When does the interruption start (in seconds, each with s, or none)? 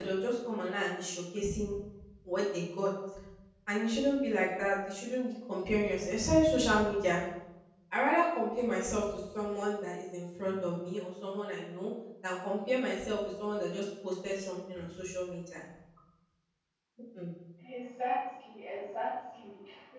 none